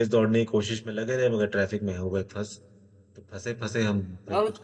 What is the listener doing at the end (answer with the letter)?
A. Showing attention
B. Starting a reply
B